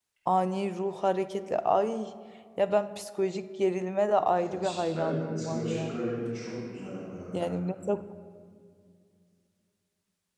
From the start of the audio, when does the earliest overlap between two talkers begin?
4.4 s

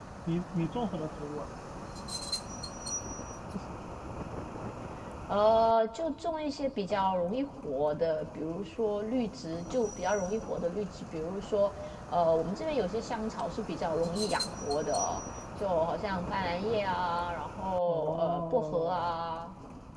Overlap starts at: 17.9 s

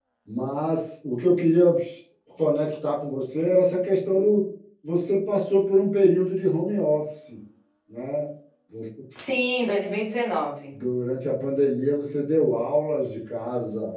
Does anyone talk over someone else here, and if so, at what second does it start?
none

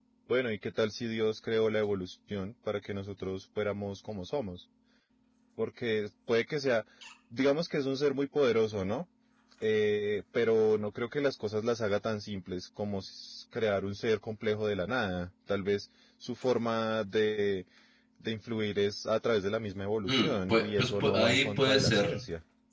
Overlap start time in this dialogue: 20.1 s

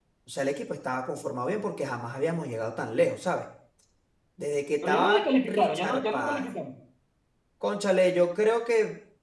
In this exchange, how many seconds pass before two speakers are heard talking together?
4.8 s

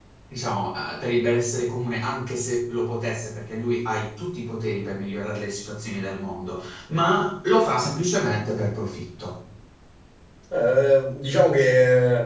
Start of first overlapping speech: none

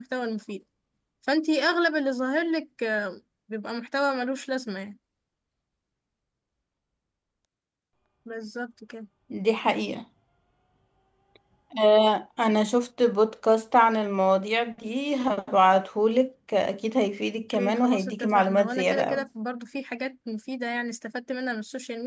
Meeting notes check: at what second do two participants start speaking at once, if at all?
17.5 s

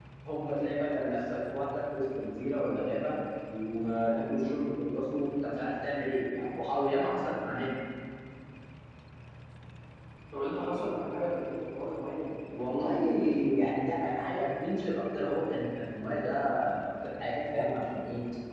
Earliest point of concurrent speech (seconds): none

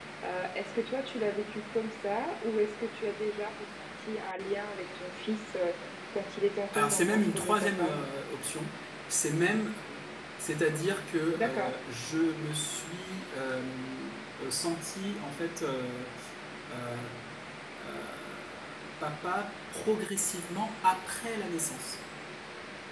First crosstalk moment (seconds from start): 6.7 s

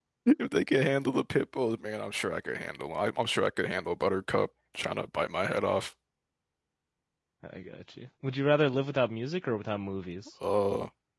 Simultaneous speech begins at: none

